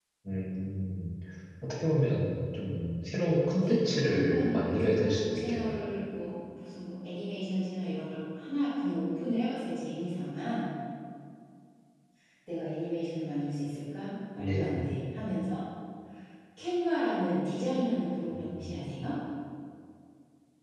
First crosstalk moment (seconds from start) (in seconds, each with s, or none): 3.5 s